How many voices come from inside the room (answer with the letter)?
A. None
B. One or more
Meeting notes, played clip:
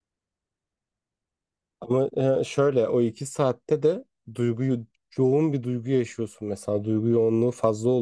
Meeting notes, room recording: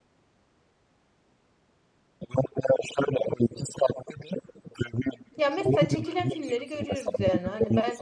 B